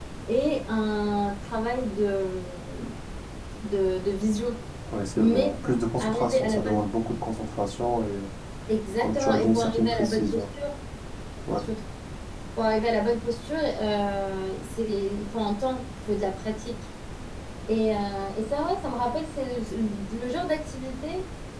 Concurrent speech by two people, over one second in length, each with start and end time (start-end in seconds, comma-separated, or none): 5.2-6.9, 9.0-10.4